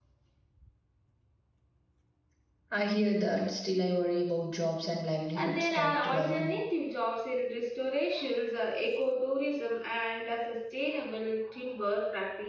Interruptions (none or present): present